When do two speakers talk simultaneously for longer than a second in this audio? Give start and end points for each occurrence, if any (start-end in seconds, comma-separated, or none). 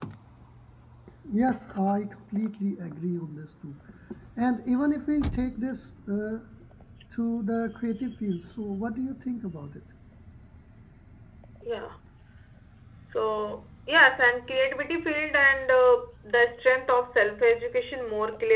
none